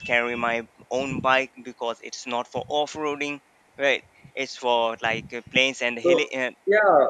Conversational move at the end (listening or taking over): taking over